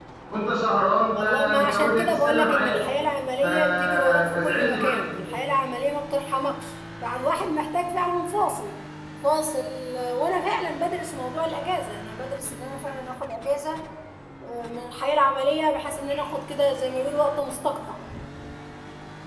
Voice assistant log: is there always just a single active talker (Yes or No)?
No